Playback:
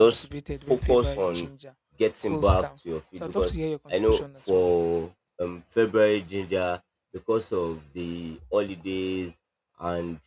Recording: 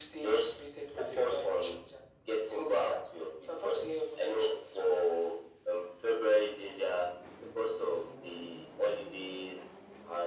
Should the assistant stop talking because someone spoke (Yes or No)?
No